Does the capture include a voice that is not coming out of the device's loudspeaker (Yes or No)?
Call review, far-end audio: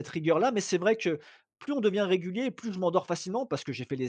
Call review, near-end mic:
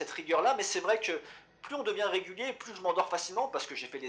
No